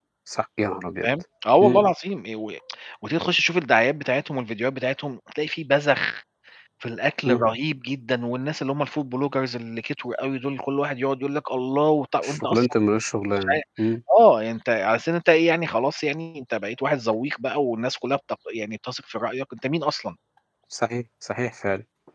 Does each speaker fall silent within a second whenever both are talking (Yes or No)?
Yes